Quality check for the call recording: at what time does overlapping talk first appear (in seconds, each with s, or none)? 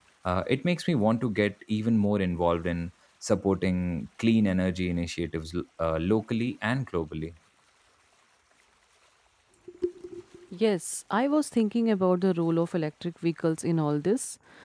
none